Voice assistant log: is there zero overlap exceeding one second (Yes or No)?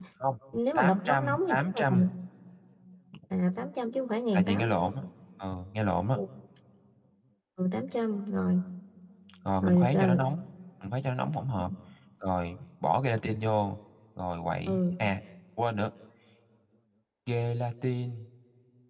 No